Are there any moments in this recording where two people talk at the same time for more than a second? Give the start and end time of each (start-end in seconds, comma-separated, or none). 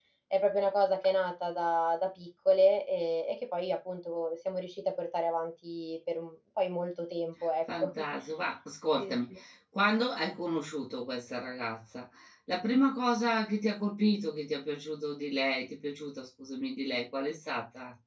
none